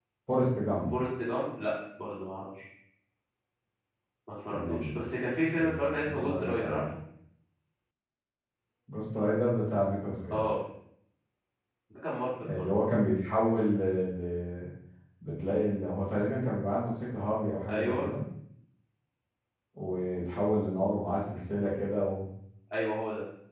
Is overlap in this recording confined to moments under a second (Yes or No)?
No